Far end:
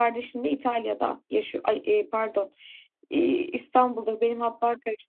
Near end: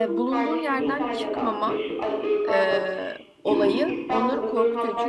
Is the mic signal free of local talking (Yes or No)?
No